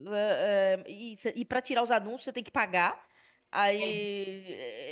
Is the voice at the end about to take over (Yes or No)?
No